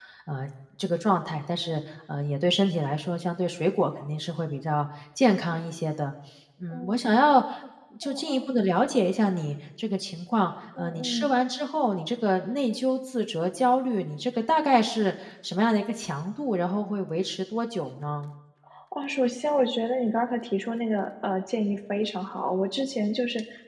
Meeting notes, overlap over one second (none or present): none